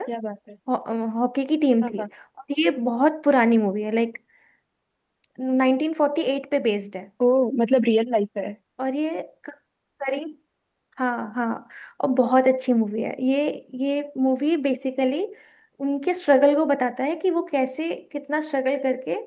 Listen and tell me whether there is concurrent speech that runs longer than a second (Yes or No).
No